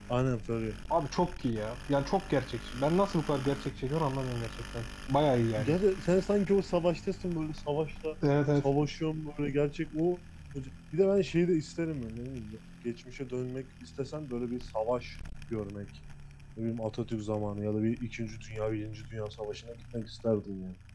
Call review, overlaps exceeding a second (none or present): none